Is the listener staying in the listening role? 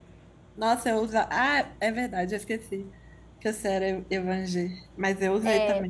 No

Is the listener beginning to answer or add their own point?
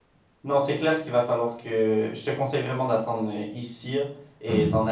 No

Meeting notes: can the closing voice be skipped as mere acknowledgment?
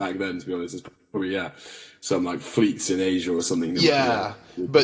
No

